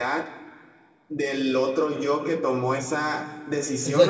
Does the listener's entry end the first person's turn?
No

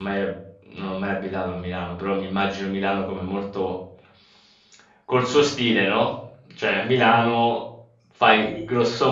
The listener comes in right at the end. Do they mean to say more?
No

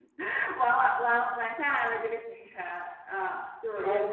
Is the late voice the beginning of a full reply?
No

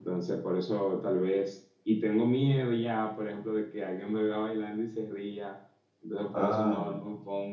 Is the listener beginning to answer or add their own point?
No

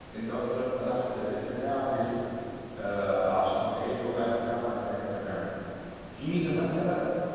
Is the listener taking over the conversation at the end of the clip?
No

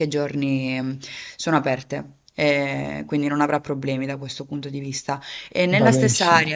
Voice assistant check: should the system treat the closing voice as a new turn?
No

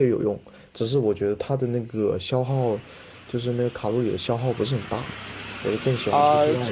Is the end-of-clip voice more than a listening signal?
Yes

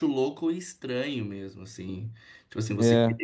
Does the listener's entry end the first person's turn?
No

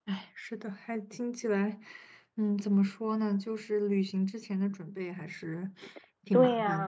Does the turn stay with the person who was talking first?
No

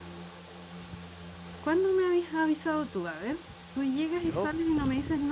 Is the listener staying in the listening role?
Yes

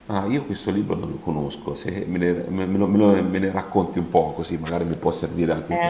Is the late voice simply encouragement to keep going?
No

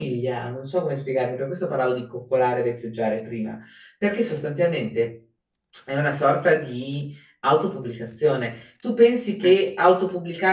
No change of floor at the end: Yes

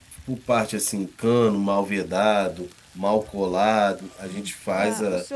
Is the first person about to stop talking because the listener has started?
Yes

